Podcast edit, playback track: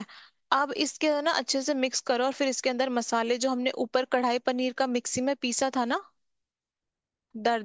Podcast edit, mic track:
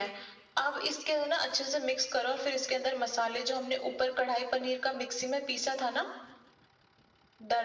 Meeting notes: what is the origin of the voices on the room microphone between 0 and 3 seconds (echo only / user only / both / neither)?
echo only